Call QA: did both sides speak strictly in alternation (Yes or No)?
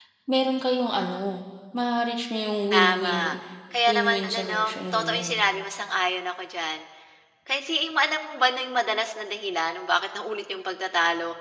No